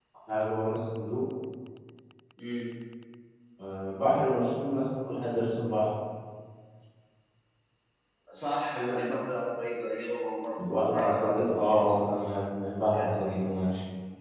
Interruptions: present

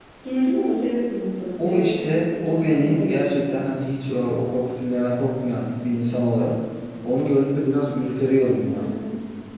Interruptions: present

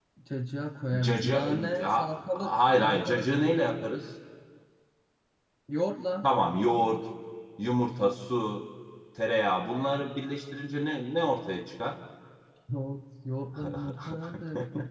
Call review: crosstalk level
present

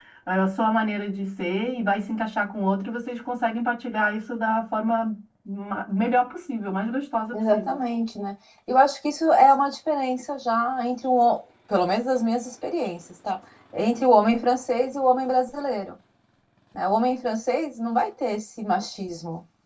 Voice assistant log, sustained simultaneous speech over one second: none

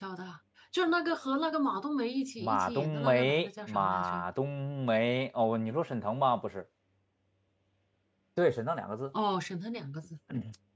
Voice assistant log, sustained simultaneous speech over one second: present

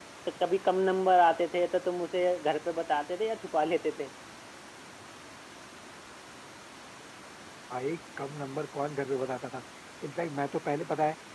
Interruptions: none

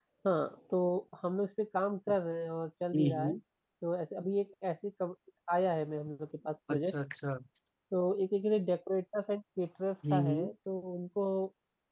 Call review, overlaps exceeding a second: none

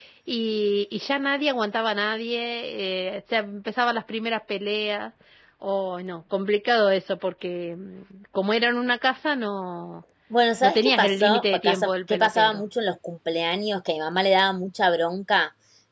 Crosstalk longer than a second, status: present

